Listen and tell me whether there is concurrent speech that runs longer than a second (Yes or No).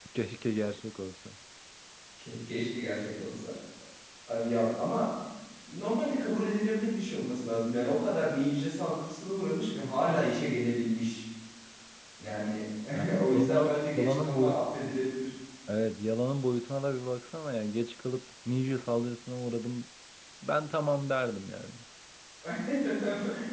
Yes